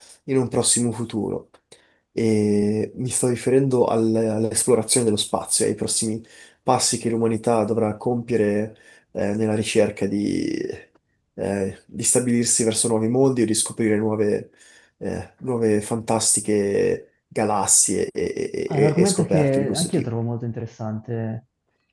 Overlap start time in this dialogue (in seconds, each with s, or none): 18.7 s